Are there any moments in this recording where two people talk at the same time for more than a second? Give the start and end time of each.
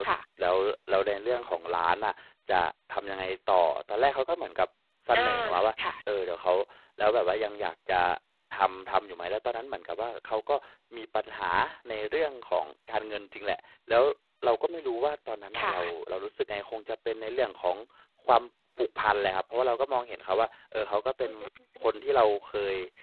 none

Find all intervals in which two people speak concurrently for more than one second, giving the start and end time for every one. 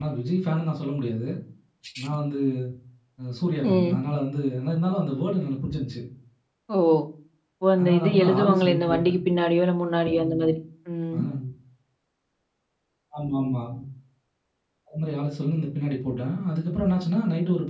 7.8-9.2

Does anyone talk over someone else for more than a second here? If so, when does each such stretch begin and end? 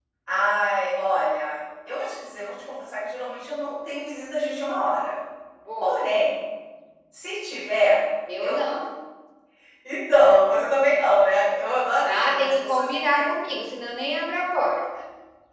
12.1-13.6

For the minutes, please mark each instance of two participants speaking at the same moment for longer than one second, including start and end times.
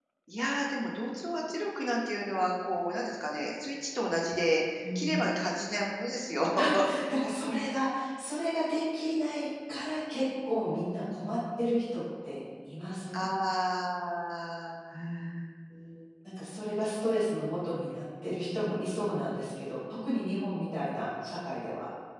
none

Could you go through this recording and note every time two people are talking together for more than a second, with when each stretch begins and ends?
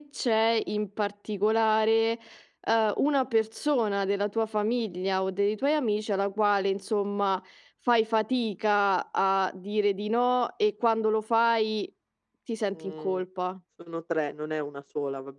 none

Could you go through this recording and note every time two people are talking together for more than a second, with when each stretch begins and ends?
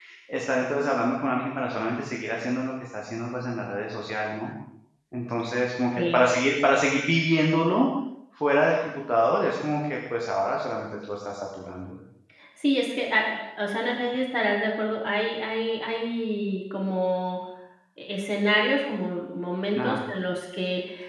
none

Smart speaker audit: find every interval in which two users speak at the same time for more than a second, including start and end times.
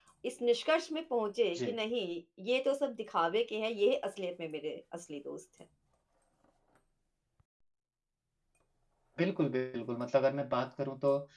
none

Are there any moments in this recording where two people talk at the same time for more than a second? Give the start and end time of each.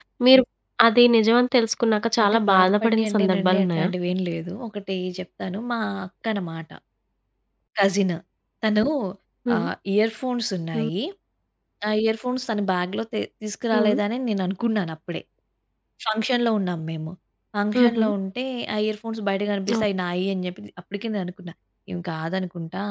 2.2-3.9

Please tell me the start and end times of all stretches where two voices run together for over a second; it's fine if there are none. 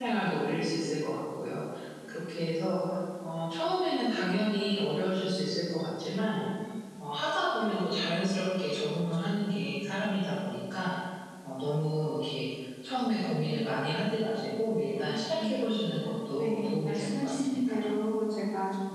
16.4-17.8

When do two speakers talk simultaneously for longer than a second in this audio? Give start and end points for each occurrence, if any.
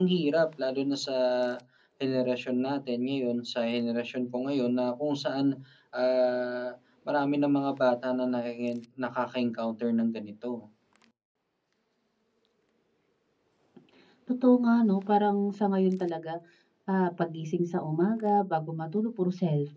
none

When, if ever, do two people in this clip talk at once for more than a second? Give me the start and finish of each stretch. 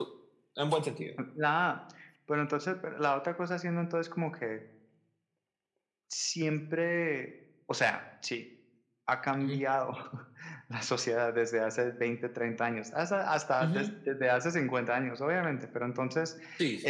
none

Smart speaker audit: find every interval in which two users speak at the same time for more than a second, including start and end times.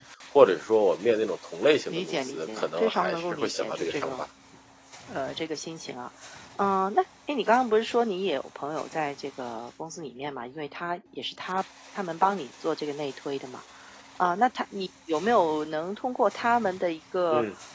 1.9-4.2

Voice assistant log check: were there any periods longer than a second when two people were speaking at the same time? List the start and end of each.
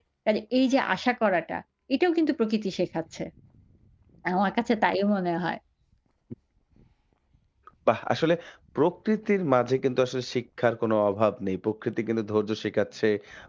none

